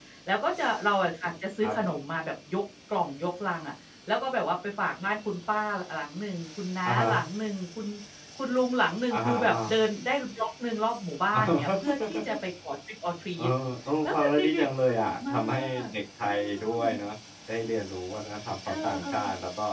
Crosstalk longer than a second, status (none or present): present